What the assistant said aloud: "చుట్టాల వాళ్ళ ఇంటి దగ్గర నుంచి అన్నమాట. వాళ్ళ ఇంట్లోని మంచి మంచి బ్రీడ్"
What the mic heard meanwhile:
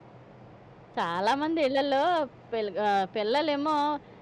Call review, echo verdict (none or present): none